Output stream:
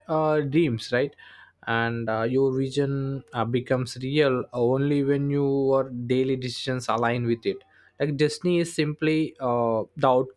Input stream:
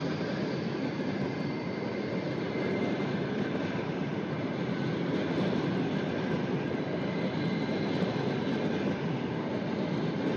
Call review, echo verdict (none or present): none